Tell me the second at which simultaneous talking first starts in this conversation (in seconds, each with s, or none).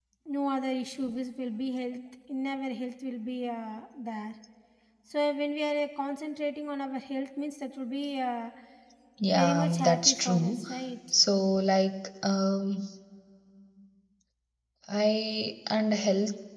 9.3 s